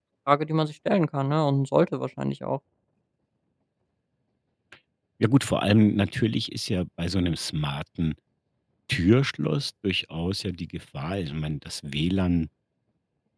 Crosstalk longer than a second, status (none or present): none